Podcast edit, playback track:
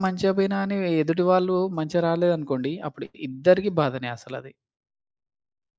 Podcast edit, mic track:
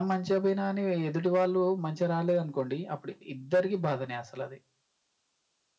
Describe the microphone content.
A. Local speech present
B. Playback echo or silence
B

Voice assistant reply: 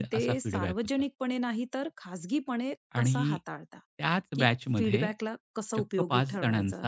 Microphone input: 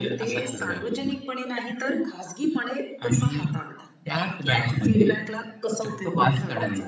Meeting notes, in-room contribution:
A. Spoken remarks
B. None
B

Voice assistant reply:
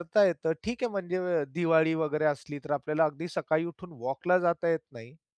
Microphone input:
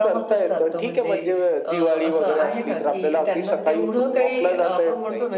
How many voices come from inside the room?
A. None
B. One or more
B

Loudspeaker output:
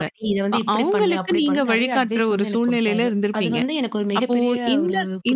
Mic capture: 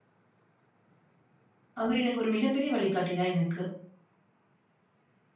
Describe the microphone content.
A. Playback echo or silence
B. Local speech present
B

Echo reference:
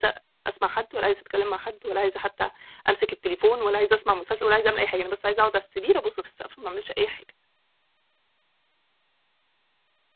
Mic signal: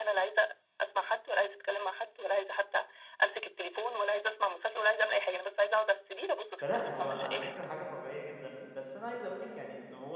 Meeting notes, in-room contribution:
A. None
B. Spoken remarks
B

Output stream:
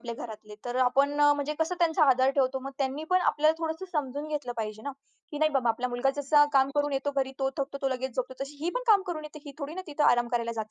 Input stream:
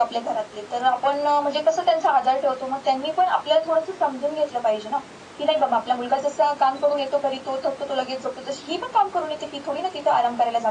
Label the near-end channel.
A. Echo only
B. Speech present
A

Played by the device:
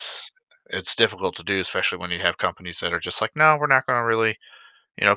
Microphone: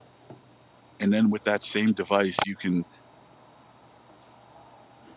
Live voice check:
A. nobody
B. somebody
B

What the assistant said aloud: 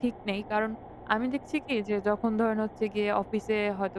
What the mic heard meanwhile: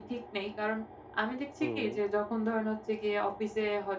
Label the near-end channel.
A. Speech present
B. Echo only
A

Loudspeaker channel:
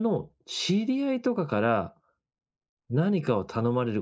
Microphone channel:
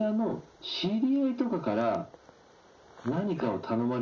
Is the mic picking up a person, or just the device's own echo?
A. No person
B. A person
A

